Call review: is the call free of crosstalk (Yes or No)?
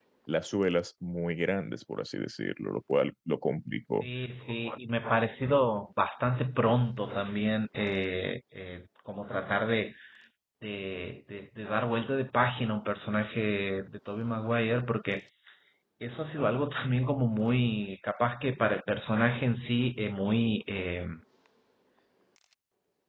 Yes